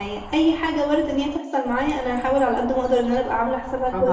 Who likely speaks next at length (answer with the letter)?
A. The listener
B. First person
B